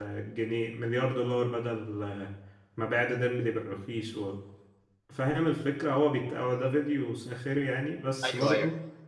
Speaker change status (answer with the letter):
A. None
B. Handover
A